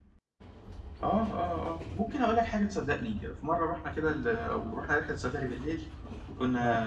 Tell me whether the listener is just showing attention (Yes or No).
Yes